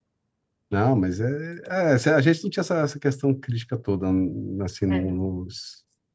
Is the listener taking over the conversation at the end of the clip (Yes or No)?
No